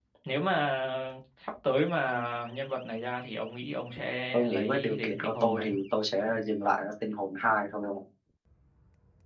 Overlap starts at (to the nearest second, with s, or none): 4 s